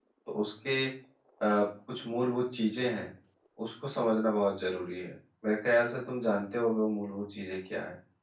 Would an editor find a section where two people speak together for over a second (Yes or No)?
No